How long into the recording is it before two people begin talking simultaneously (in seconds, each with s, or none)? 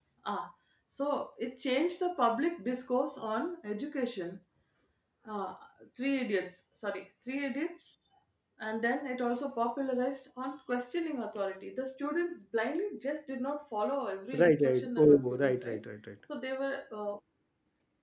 14.3 s